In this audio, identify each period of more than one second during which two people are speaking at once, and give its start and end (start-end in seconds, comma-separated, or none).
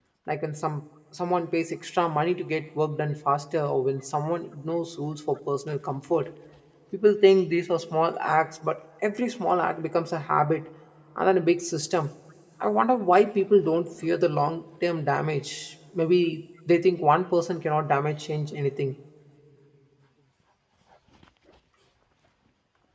none